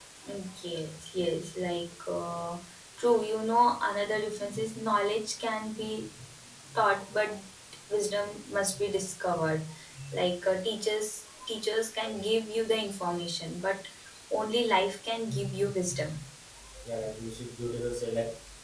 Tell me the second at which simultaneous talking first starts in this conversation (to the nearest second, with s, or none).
none